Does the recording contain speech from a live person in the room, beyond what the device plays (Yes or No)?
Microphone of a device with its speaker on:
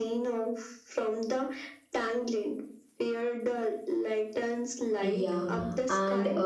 Yes